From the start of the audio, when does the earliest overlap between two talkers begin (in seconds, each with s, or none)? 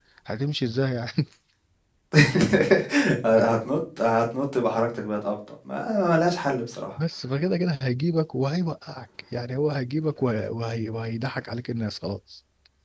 none